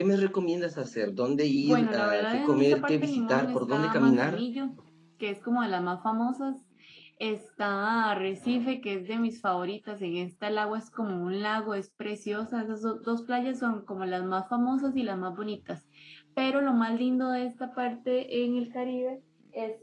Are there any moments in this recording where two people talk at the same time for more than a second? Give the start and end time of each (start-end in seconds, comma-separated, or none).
1.6-4.4